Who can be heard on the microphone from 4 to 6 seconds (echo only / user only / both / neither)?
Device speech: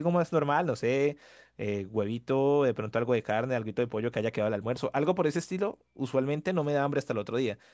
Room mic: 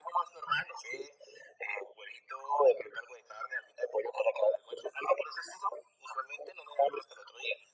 echo only